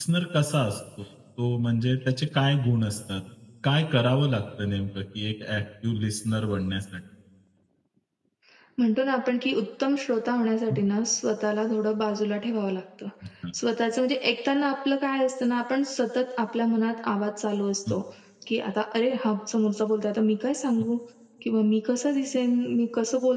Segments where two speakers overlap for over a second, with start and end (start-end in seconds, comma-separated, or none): none